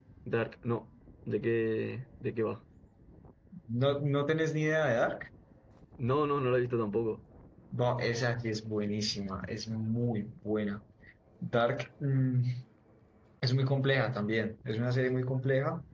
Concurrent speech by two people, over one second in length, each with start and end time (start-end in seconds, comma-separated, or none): none